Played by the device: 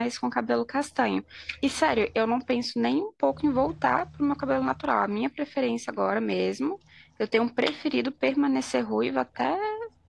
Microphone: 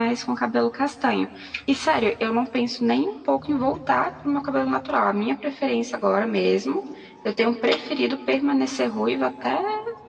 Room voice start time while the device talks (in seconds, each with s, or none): none